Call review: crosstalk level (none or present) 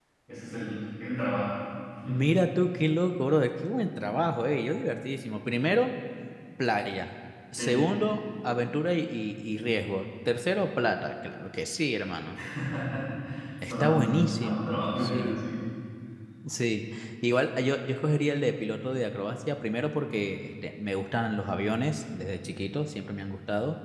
present